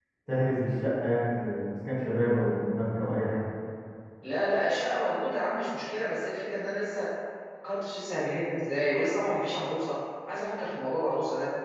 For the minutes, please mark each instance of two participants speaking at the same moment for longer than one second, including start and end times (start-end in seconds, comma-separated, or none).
none